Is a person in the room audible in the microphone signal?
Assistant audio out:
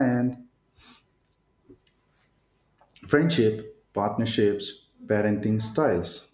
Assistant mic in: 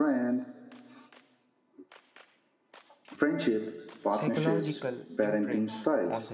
Yes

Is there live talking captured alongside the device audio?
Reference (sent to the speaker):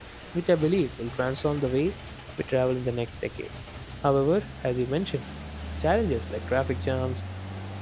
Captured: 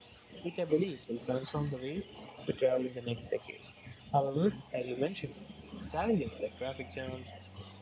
No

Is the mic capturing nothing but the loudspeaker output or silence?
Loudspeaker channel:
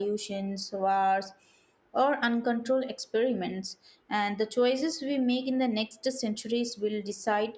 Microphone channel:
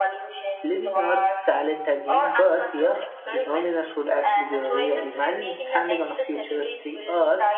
No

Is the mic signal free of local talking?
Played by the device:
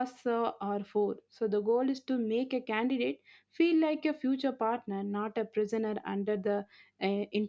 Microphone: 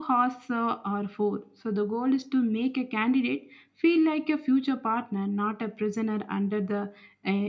Yes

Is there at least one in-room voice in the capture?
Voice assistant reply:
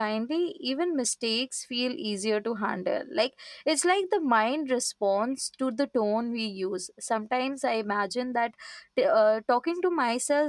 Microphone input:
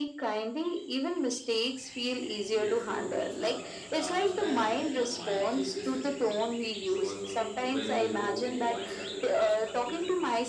Yes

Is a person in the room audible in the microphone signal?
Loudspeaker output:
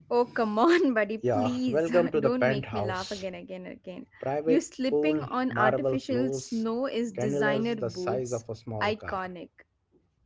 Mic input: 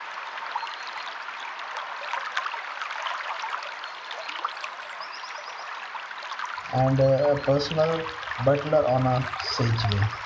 Yes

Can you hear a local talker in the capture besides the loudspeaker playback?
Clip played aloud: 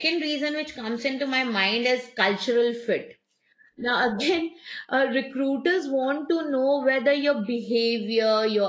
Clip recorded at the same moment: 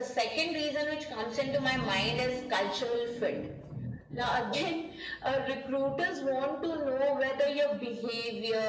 No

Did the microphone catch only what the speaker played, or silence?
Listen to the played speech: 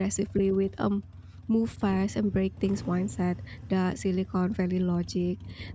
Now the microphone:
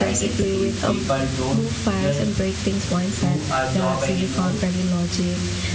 No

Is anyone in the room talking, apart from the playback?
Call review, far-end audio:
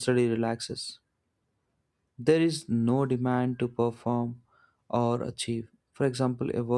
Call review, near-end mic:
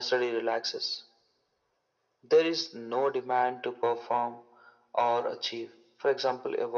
No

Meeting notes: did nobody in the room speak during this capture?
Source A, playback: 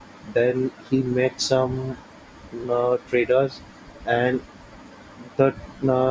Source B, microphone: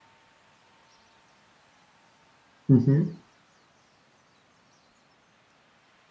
No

